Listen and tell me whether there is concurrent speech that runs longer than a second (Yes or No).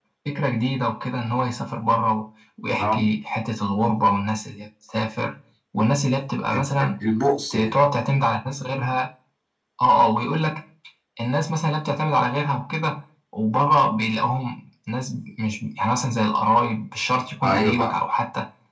No